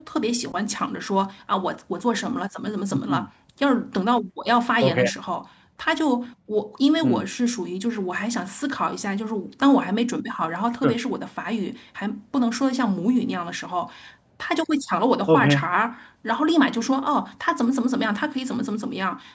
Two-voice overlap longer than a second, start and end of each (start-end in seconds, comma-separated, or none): none